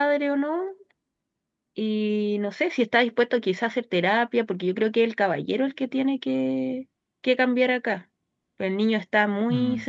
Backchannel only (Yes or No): Yes